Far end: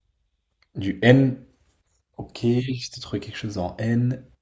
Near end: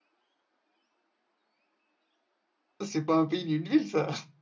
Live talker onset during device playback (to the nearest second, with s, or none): 3 s